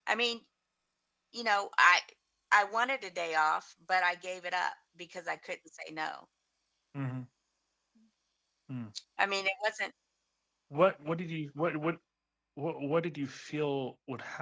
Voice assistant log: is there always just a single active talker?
Yes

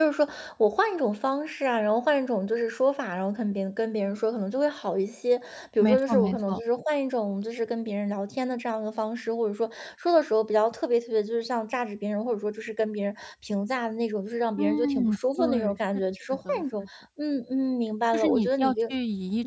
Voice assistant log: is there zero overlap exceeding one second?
No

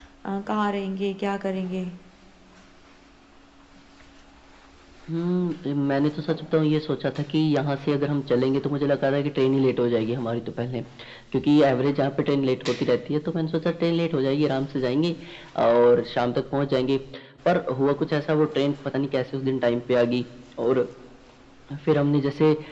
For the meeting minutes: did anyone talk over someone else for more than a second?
No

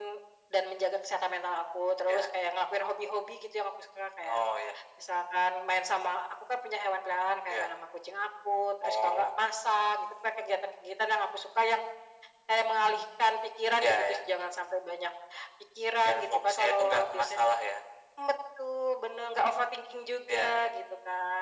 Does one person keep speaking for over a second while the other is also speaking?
Yes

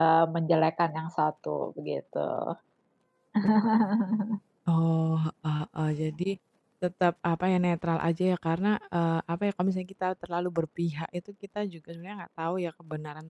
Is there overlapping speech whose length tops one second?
No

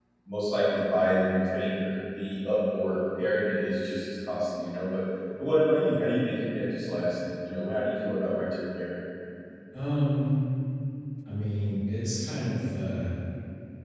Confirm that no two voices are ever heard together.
Yes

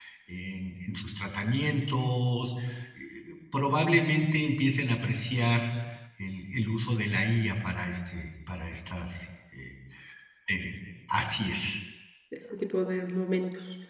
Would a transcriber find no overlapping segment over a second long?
Yes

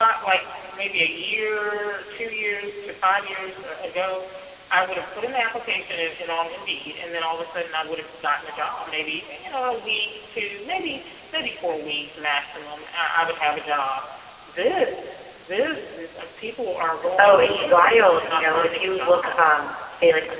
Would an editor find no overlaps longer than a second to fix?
No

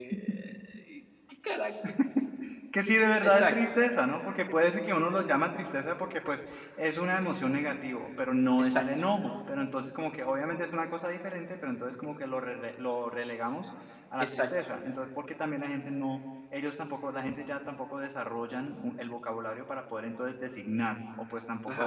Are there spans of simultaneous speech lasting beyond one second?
No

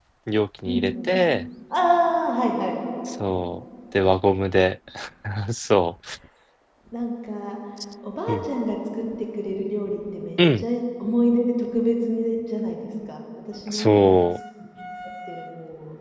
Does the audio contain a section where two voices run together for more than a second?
No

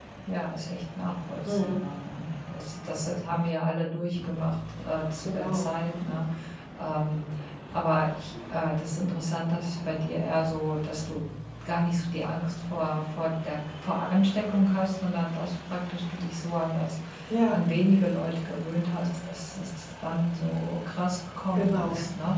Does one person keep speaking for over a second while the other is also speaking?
No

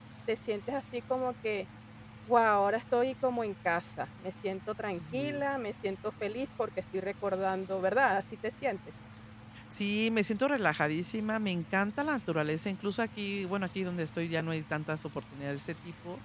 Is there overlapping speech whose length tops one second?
No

